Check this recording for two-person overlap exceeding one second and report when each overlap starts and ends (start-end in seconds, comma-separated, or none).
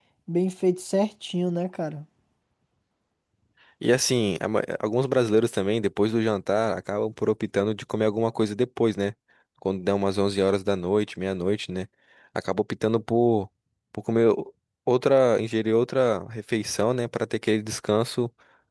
none